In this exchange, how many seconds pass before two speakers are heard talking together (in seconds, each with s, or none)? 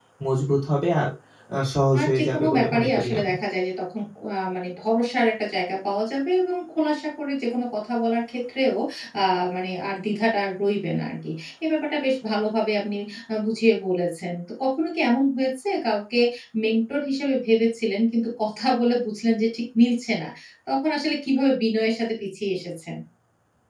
2.0 s